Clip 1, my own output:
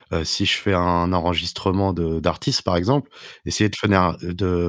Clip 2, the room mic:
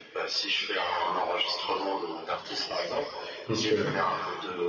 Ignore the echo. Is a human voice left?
Yes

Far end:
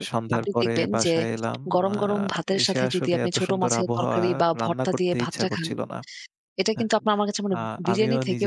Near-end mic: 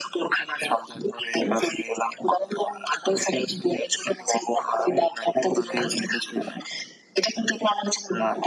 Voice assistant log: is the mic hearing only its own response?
No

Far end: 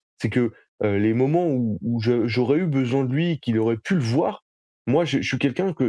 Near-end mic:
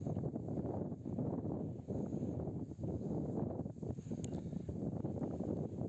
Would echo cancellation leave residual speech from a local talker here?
No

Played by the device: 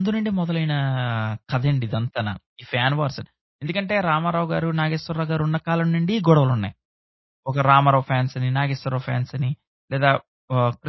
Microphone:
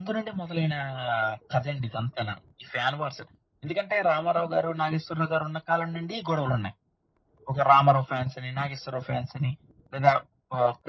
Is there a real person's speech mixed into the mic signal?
No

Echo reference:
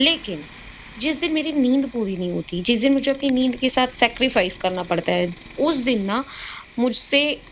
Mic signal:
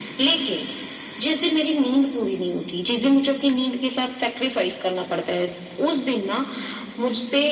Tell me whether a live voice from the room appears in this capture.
No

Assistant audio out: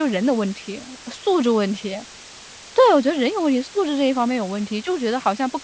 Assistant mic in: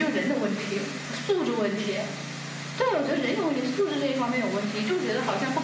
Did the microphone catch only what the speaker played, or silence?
Yes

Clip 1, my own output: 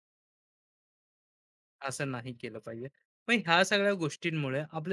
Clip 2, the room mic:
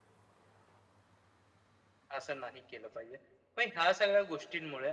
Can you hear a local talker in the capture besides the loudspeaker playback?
No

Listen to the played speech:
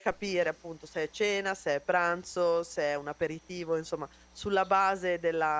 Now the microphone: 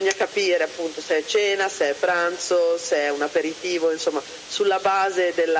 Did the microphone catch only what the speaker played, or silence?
Yes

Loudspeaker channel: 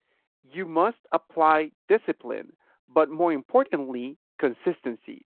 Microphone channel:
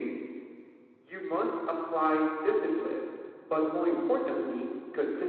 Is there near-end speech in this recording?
No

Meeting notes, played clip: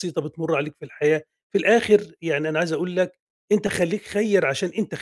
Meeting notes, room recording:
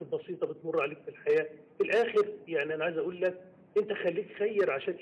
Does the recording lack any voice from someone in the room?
Yes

